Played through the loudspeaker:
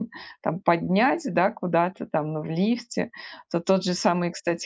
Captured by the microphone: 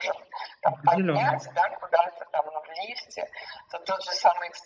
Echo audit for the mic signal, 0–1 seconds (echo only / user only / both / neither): both